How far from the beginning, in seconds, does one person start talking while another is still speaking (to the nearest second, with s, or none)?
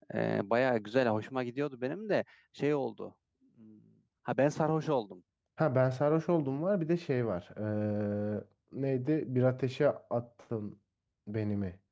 none